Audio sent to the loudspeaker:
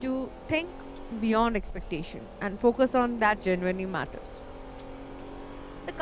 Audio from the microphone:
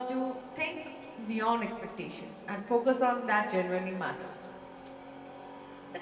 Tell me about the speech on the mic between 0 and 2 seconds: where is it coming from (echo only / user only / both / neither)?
echo only